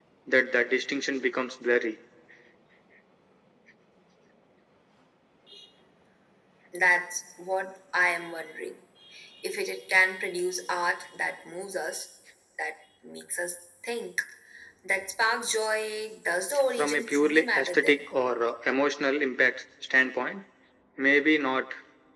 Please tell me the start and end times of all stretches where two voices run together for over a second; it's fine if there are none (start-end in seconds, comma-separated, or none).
16.8-18.0